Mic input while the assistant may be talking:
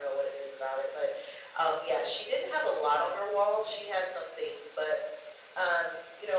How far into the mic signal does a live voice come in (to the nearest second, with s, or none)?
none